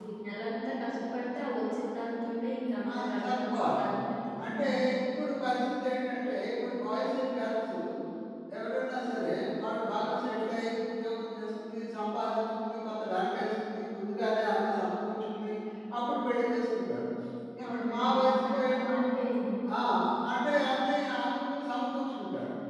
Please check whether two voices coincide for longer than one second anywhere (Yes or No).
Yes